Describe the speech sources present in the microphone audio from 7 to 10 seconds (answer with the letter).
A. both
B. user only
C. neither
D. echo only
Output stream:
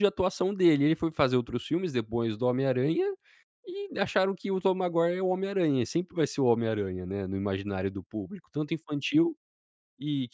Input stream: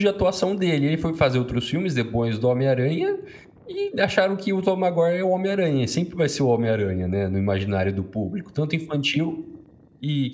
D